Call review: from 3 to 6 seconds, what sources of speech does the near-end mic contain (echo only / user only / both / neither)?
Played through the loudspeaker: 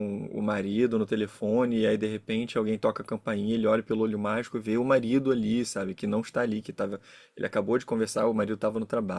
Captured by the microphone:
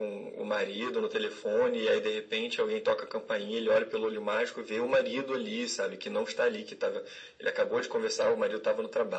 echo only